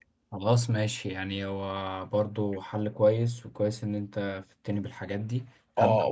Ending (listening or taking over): taking over